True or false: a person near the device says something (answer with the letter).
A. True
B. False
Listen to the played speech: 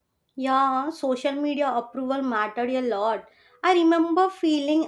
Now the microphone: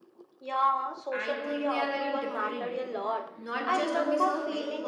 A